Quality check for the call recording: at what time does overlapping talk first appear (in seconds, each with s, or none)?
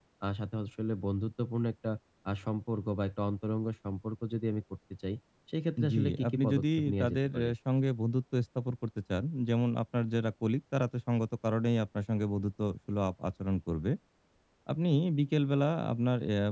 5.9 s